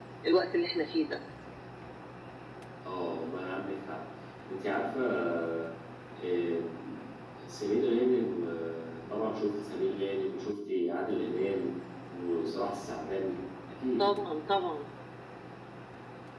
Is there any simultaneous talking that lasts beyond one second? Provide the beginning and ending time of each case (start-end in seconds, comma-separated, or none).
none